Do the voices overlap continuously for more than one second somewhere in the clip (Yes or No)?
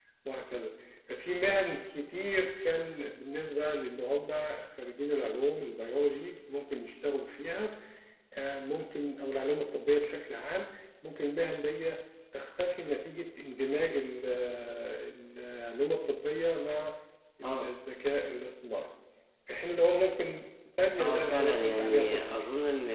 Yes